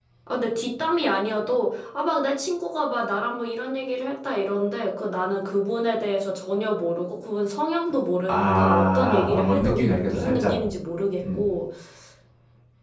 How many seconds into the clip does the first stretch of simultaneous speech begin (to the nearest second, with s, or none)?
8 s